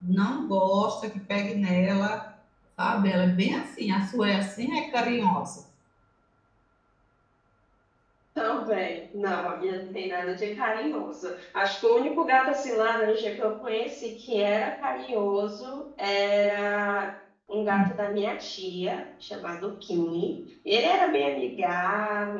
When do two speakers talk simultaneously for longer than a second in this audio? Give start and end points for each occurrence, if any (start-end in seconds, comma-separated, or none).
none